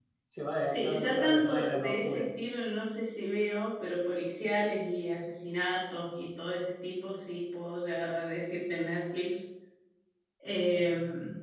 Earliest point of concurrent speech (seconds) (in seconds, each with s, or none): 0.7 s